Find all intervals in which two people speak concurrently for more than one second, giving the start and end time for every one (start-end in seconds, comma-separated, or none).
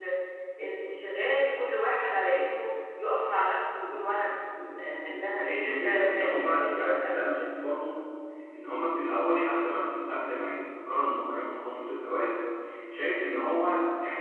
5.4-7.1